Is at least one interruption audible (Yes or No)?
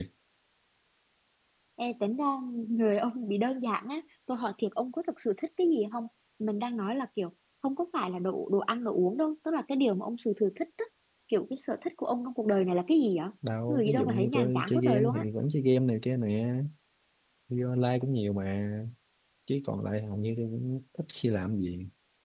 Yes